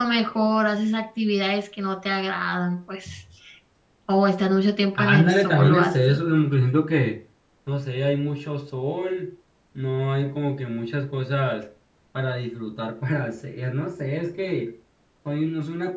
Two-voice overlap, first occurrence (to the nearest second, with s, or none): 5 s